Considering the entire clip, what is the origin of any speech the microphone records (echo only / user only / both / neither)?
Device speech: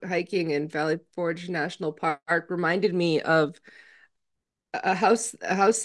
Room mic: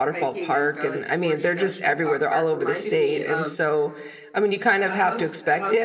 both